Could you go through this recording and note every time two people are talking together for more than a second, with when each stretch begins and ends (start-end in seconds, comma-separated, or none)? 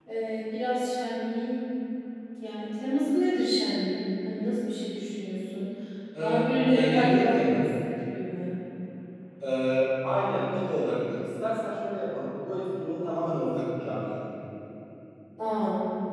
6.2-7.7